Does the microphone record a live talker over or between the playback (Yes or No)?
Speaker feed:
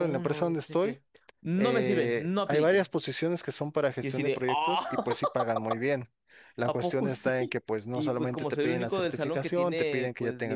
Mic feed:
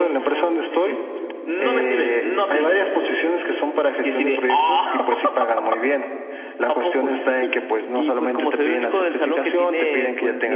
No